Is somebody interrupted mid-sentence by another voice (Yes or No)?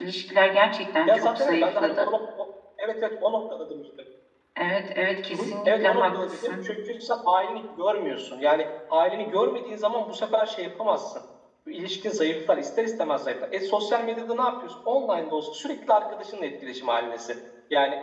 Yes